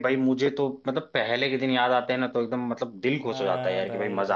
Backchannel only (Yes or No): No